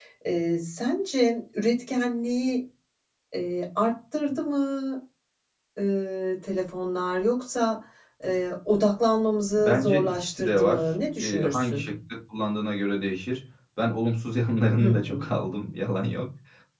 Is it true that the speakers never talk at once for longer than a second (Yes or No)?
No